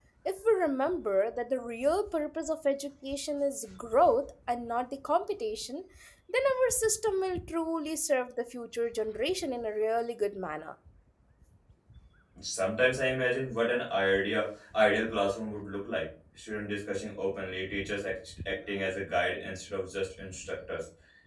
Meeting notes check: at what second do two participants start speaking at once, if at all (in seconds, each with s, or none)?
none